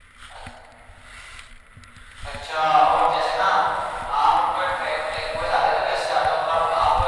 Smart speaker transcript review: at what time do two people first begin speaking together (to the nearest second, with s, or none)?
none